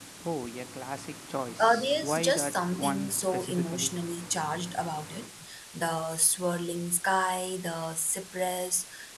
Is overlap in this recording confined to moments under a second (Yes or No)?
No